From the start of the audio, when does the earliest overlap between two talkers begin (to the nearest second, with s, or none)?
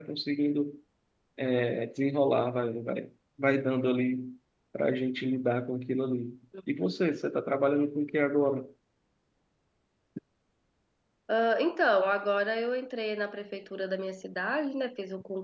none